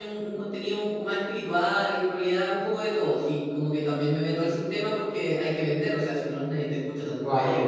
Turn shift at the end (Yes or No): Yes